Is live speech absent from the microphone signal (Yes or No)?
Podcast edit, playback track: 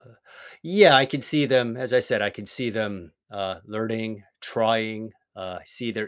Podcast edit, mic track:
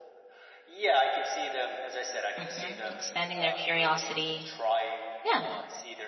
No